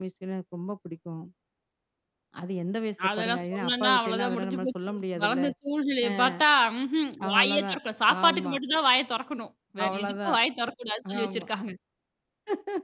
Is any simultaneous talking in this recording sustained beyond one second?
Yes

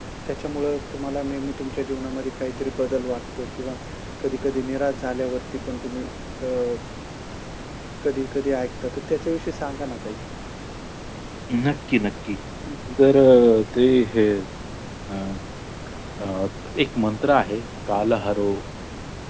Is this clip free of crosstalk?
Yes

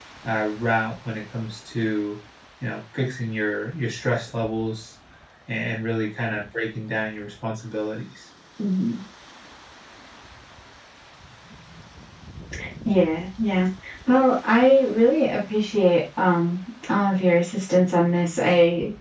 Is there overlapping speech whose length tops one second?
No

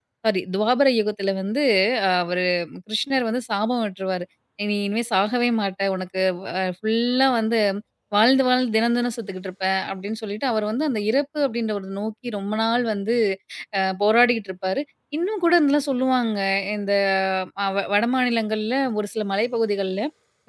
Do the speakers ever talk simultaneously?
No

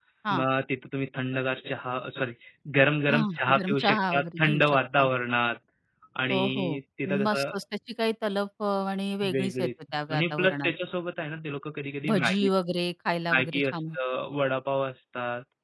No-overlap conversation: No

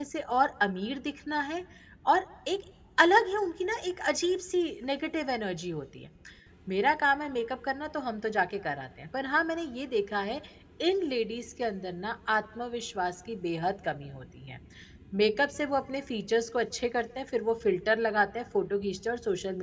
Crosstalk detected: No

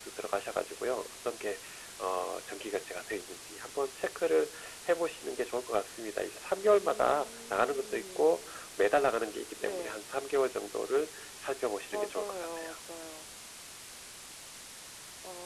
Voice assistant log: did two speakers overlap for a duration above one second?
Yes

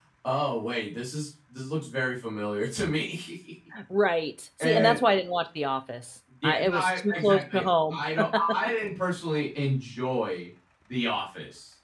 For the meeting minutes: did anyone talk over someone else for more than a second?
Yes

